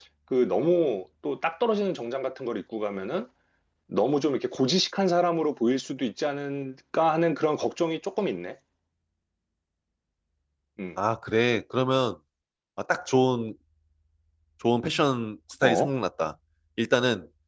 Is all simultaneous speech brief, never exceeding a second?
Yes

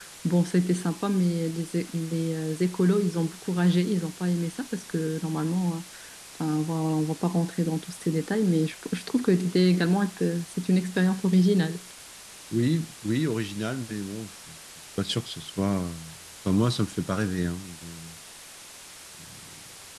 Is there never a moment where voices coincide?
Yes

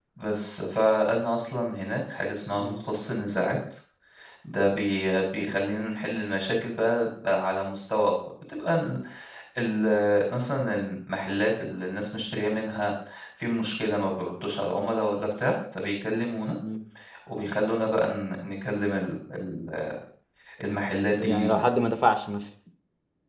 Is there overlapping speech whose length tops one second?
No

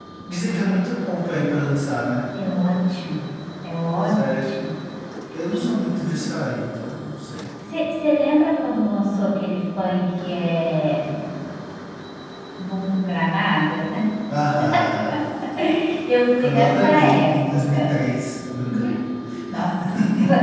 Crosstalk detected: Yes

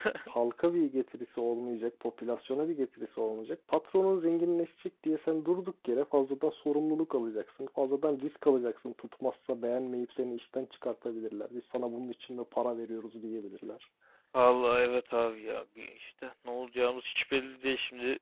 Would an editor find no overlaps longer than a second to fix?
Yes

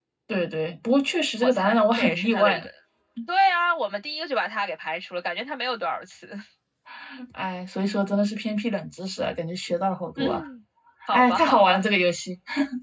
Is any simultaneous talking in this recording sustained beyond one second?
Yes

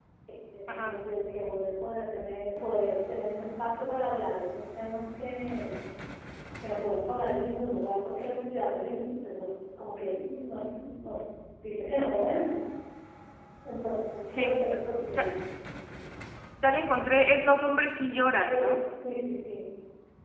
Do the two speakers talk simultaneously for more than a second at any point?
No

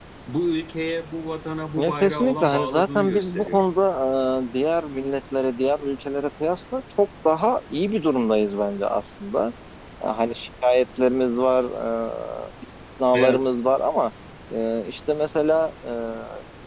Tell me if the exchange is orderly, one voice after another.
No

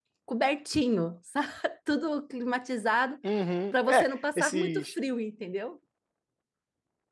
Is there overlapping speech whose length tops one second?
Yes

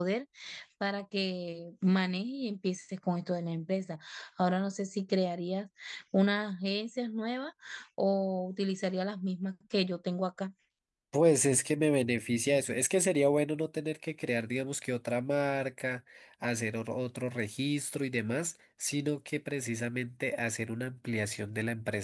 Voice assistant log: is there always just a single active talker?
Yes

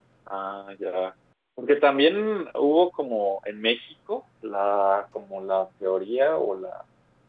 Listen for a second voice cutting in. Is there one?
No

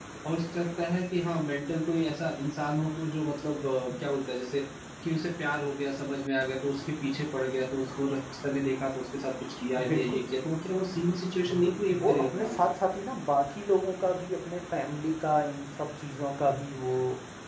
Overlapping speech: Yes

